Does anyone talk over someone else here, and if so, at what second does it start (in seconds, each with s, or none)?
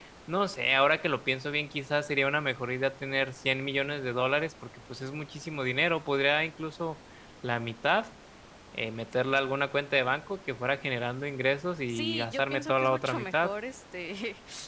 11.9 s